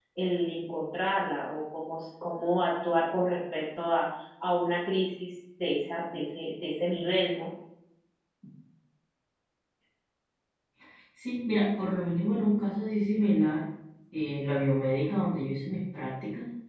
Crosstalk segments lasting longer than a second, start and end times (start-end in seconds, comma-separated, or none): none